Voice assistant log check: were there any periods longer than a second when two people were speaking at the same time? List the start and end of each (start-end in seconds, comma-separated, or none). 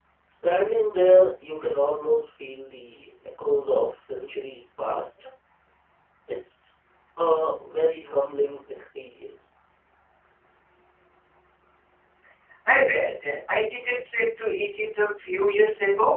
none